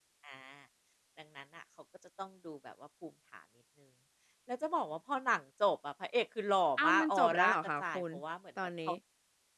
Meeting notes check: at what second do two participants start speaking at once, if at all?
6.8 s

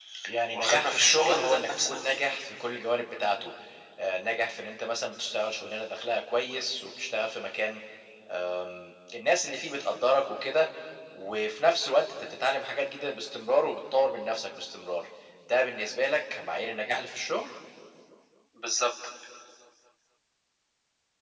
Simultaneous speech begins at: 0.5 s

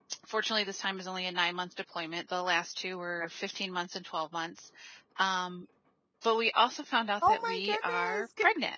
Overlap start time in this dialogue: 7.2 s

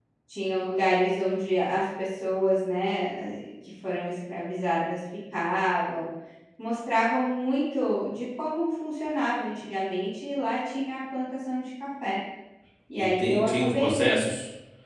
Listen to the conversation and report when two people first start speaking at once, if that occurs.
13.0 s

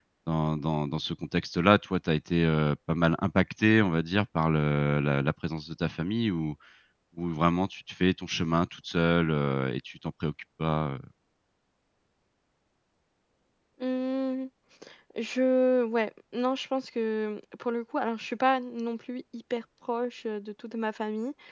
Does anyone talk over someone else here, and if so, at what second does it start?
none

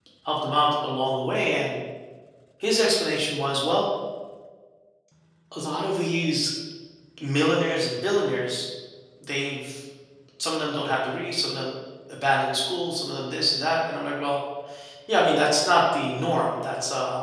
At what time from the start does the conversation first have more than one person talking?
none

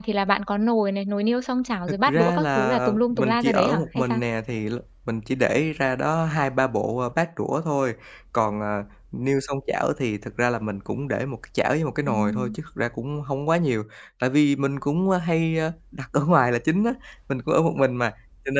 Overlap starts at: 1.9 s

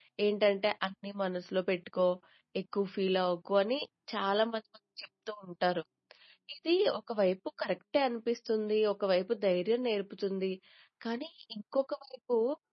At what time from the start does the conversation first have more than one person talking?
none

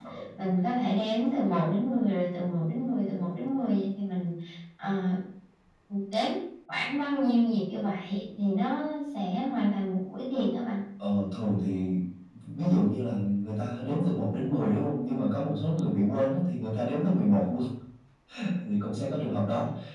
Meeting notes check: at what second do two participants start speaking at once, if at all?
none

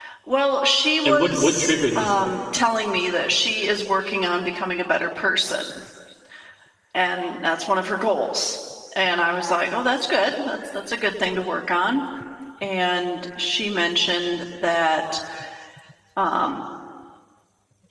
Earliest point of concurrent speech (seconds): 1.1 s

